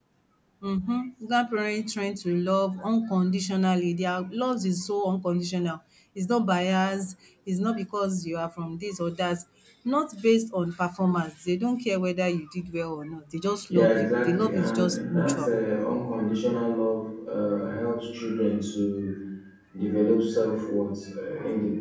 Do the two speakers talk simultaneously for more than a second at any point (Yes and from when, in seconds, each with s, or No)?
Yes, from 13.7 s